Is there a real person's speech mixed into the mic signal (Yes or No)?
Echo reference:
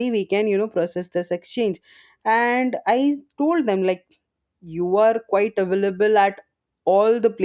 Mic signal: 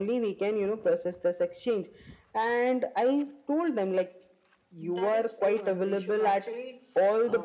Yes